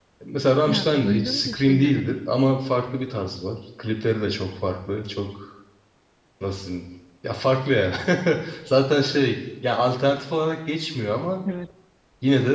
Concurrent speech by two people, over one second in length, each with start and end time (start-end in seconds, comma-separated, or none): 0.7-2.2